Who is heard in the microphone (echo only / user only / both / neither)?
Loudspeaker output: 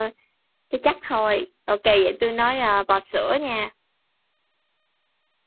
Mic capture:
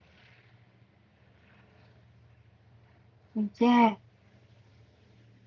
user only